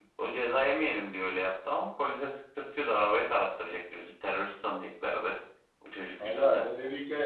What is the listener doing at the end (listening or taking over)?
taking over